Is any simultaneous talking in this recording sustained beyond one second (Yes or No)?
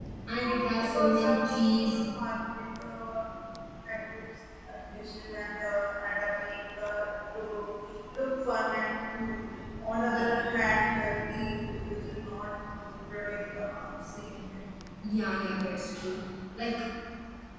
Yes